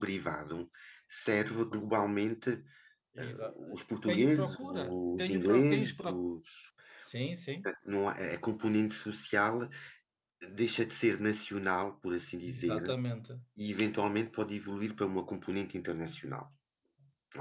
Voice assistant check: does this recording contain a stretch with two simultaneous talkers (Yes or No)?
Yes